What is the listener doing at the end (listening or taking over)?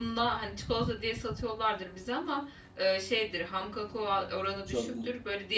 listening